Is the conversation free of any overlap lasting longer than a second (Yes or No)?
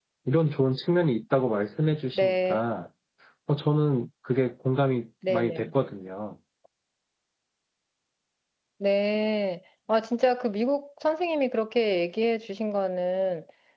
Yes